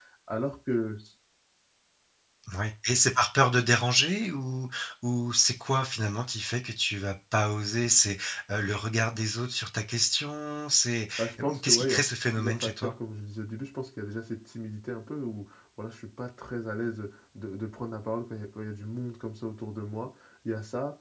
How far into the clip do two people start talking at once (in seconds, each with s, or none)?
11.2 s